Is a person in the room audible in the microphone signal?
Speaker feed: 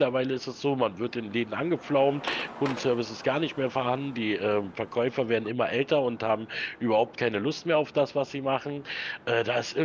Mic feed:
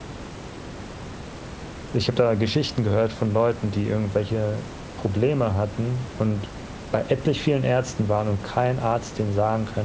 Yes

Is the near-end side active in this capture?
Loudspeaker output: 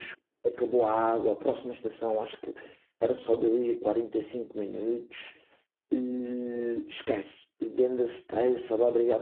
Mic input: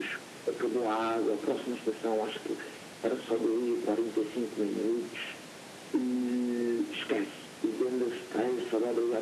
No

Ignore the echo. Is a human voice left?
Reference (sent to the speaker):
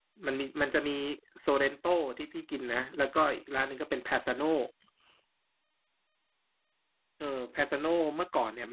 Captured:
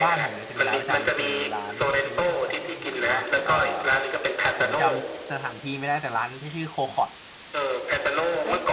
Yes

